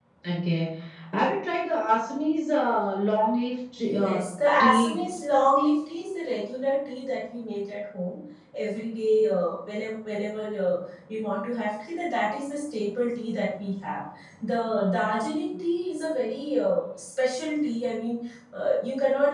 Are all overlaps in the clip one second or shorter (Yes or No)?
Yes